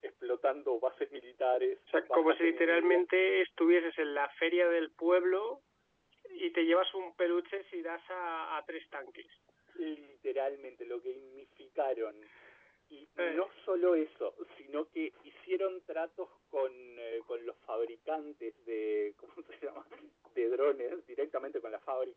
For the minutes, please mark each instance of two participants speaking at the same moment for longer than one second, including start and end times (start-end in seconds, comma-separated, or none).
1.9-3.1